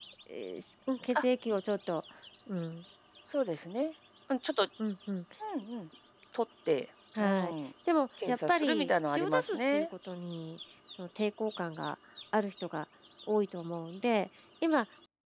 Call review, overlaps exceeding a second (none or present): present